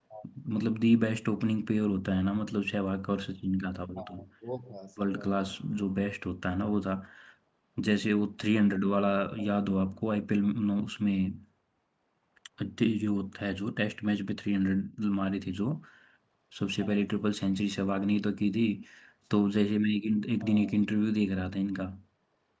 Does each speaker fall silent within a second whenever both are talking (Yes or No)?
Yes